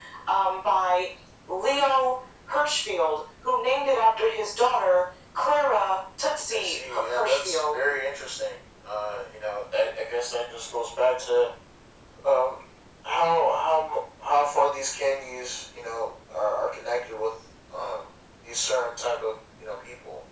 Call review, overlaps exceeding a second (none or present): present